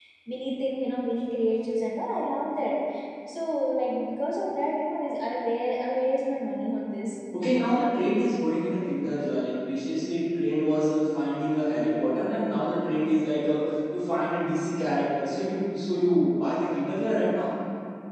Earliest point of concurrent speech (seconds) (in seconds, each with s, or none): none